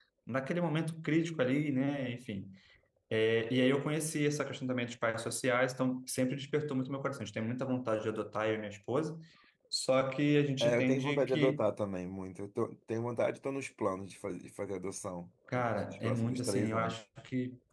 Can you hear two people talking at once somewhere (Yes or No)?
Yes